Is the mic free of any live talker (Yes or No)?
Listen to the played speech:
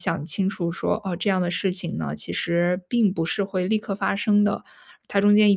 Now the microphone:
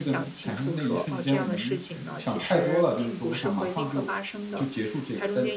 No